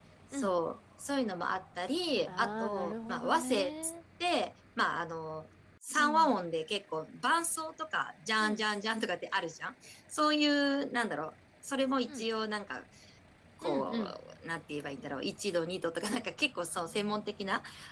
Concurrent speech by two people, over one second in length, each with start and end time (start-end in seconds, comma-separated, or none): 2.3-3.9